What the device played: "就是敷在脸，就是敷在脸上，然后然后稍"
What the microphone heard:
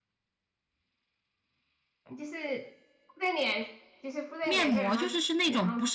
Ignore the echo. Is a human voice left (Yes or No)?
Yes